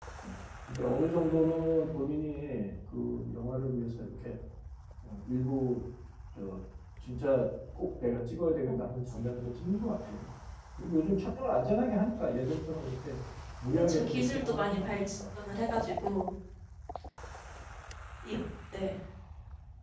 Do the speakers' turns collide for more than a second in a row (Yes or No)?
Yes